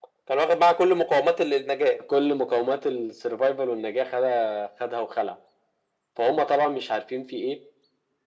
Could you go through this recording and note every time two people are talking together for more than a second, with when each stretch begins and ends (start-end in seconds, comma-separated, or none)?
none